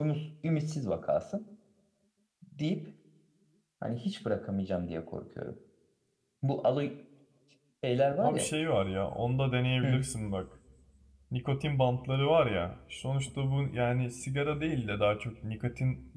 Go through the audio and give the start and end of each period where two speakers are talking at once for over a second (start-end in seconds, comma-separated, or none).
none